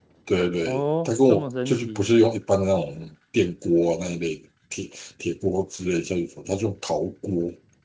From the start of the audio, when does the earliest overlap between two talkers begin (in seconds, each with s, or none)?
0.7 s